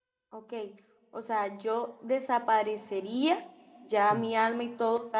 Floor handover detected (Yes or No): No